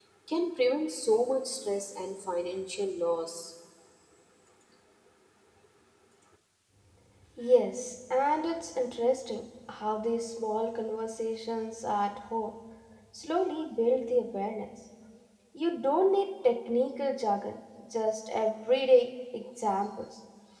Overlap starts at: none

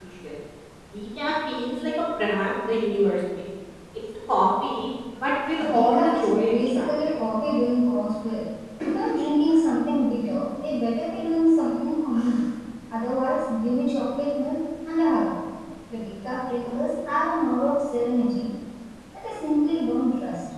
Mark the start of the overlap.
5.5 s

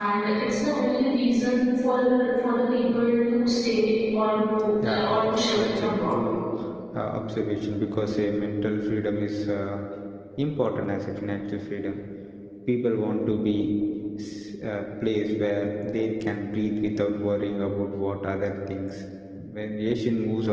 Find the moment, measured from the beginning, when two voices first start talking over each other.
4.8 s

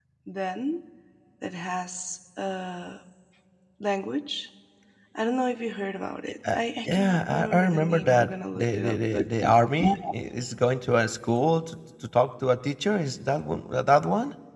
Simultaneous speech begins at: 6.5 s

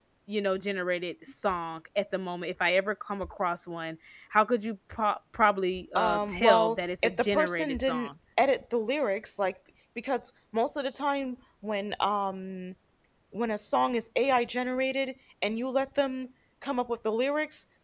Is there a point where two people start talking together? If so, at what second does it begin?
6.0 s

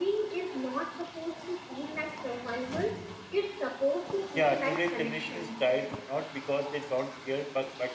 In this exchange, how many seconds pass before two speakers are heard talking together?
4.3 s

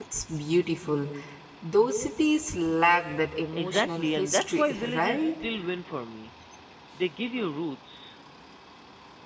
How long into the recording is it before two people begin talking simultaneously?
3.5 s

